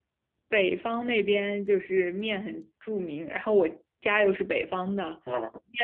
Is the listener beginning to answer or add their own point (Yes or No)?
No